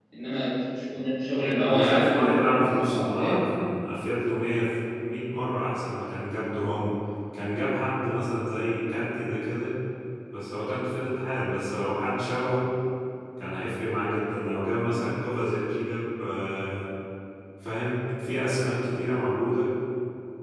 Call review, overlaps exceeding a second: present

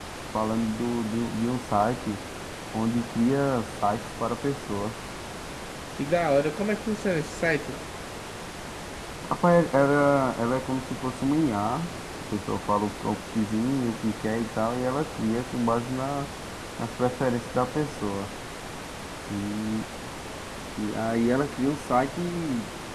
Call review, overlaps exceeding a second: none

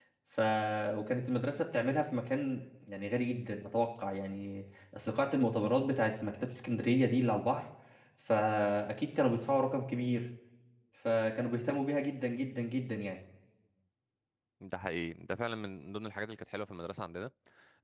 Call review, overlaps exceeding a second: none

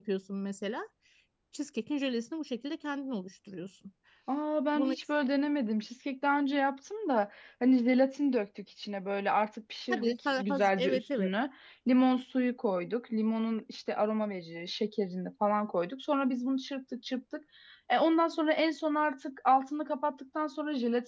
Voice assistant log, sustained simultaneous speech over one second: present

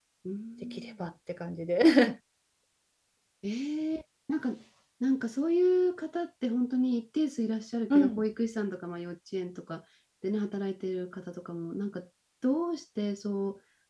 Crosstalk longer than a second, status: none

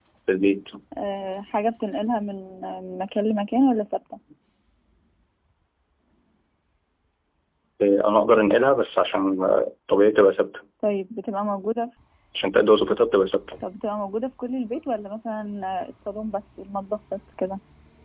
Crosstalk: none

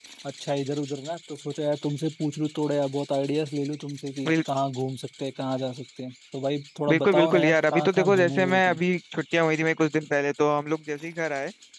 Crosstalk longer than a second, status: present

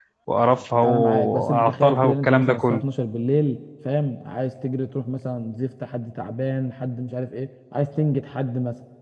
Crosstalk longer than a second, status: present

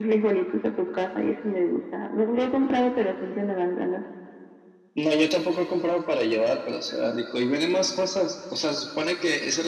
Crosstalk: none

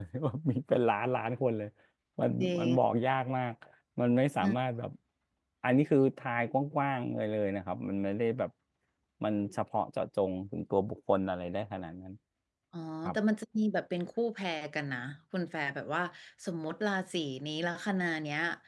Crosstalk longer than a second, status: none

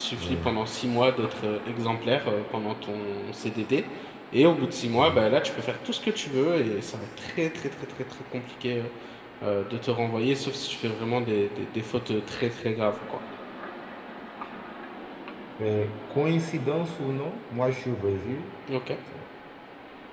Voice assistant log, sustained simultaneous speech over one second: none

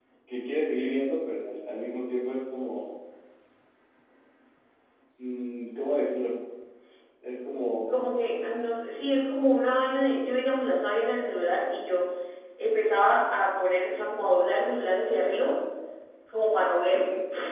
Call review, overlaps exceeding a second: none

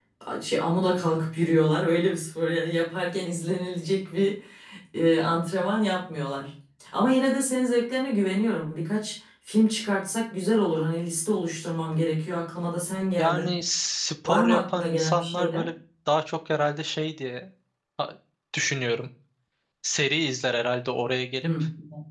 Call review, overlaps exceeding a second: present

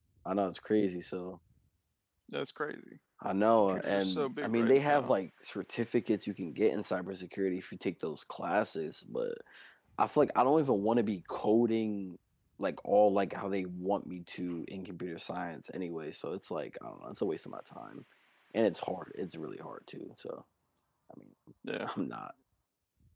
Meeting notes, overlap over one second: present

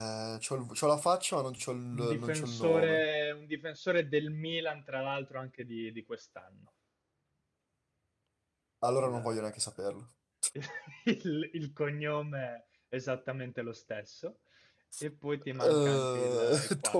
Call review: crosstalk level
present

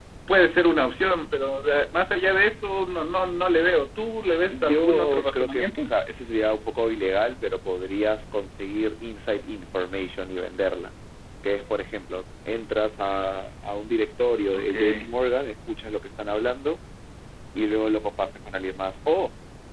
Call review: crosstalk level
present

